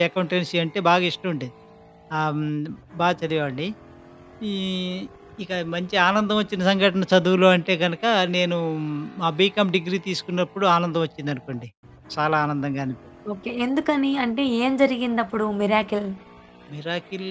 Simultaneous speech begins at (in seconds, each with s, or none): none